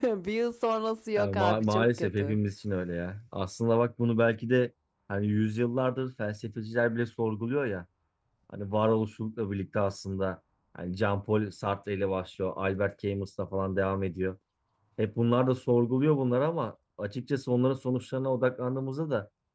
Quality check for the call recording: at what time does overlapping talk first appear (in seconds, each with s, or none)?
1.2 s